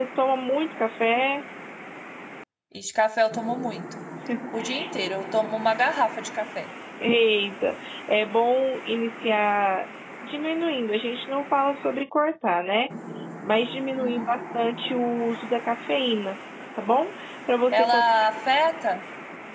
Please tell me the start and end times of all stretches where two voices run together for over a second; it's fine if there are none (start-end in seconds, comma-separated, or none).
none